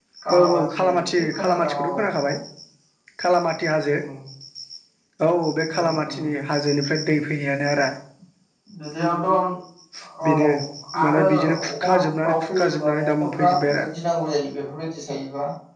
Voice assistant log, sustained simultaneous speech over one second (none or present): present